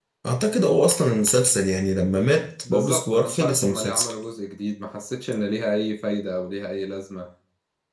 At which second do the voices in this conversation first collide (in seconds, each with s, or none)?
2.6 s